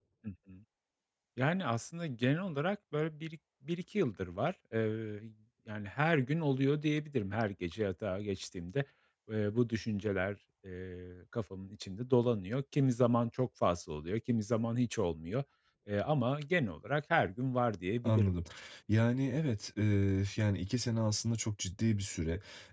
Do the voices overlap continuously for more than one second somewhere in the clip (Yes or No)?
No